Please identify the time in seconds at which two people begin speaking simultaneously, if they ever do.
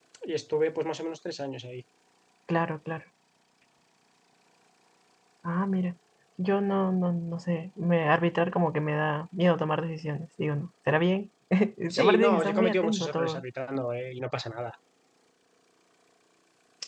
11.9 s

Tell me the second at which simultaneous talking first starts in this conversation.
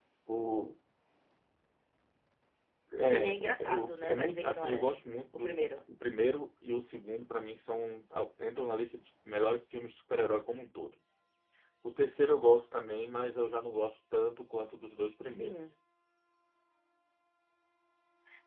3.0 s

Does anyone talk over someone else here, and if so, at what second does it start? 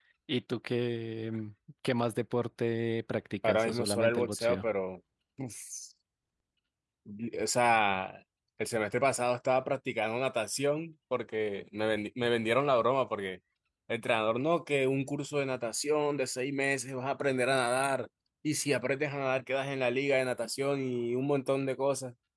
3.4 s

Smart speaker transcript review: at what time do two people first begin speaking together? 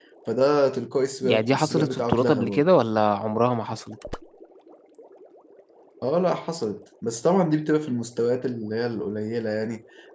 1.2 s

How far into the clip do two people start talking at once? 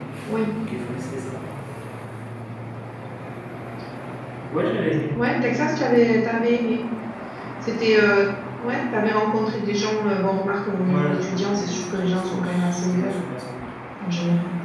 10.8 s

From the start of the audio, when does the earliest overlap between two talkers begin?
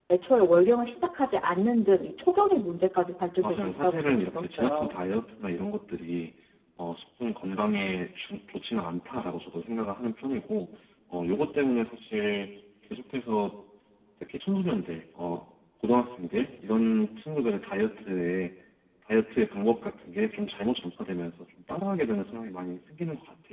3.4 s

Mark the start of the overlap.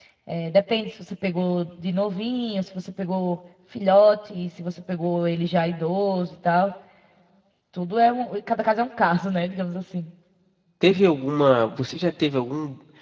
none

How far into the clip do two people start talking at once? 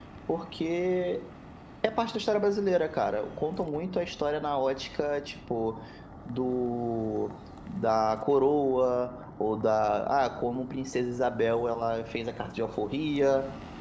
none

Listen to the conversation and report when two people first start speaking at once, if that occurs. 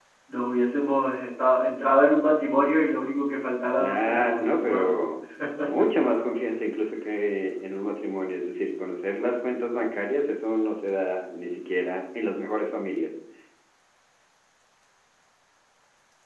3.8 s

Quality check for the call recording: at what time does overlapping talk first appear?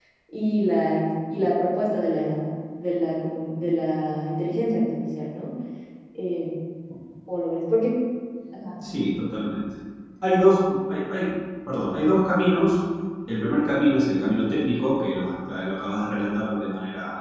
none

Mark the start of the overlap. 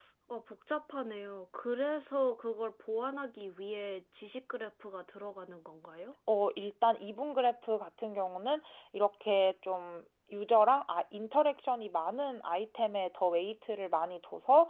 none

